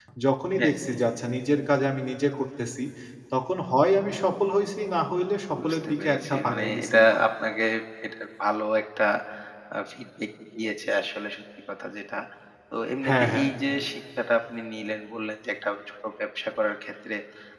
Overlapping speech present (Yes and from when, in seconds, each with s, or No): Yes, from 5.6 s